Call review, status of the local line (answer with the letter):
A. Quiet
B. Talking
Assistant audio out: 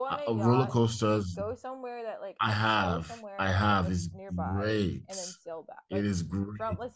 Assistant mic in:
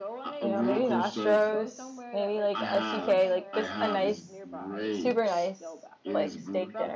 B